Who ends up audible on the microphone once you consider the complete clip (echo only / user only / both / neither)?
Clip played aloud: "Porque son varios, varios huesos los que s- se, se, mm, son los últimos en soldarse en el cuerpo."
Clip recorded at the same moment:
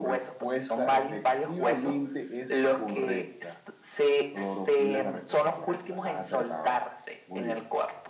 both